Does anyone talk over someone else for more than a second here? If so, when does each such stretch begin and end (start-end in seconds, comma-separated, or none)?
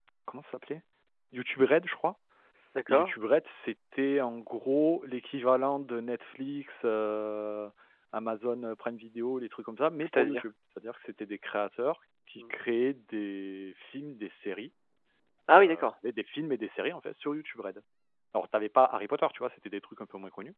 none